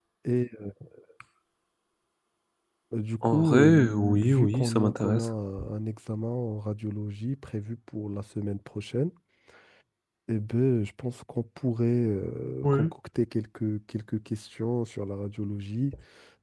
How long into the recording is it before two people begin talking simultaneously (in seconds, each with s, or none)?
3.2 s